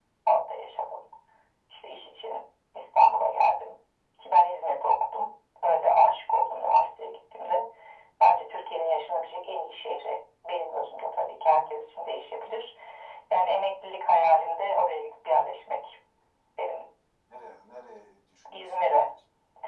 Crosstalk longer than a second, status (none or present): none